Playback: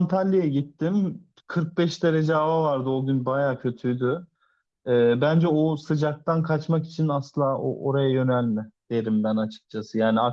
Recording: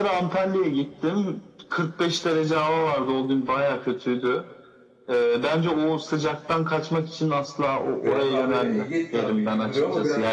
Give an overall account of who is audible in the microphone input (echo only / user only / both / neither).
both